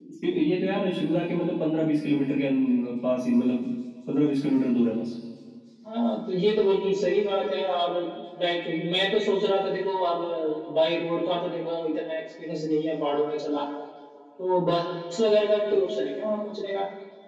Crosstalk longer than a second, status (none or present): none